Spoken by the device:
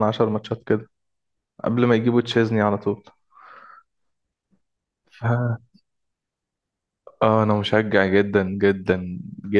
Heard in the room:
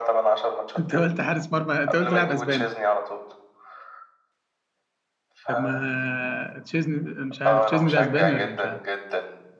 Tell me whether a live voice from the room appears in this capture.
Yes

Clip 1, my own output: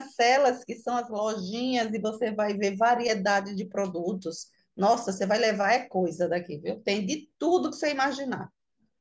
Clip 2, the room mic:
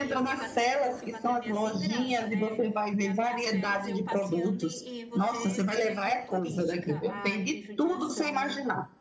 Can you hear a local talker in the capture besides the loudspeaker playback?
Yes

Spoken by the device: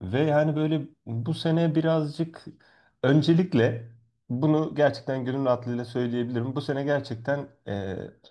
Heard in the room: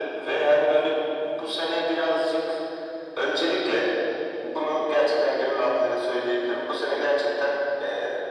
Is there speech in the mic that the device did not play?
No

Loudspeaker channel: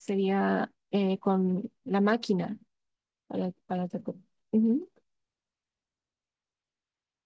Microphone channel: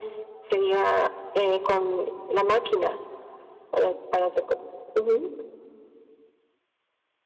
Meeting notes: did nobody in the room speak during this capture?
Yes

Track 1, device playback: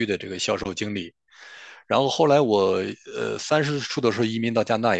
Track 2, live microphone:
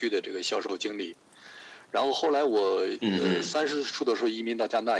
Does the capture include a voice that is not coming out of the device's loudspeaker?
Yes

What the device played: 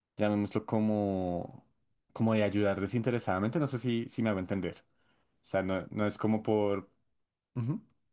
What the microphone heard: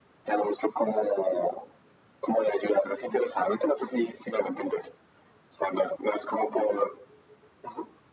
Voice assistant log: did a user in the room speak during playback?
No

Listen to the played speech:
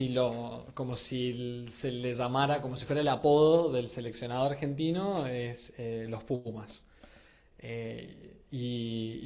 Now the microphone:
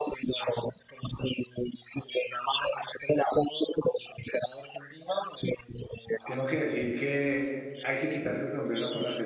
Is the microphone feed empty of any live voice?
No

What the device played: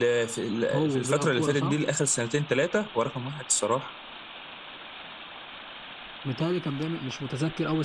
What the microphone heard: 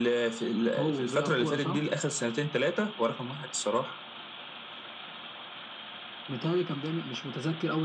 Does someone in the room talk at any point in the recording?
No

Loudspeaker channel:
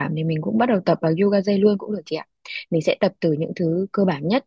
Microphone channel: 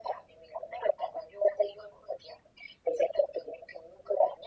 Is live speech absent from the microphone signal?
Yes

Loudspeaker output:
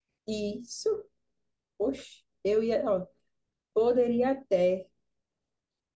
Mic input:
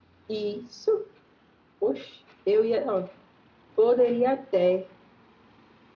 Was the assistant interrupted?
No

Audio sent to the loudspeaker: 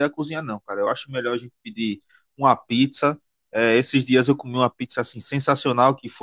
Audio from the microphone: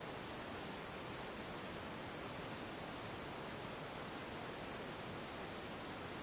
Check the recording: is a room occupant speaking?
No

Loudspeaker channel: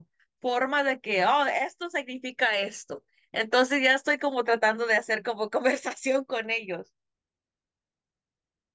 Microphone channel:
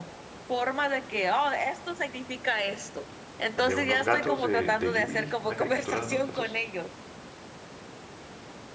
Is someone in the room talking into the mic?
Yes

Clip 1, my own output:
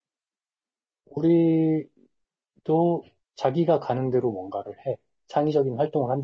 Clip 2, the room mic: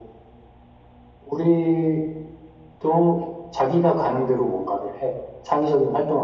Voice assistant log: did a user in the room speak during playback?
No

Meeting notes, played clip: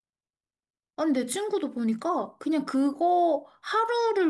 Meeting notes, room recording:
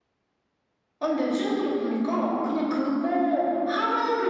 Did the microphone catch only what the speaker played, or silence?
Yes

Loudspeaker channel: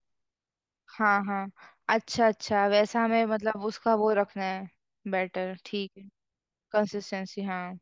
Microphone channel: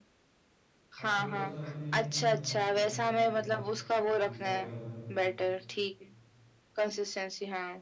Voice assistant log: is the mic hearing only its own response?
No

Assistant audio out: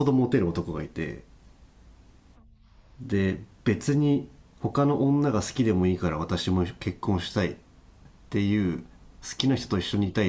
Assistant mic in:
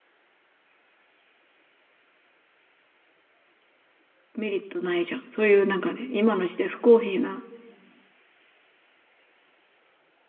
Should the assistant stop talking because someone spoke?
Yes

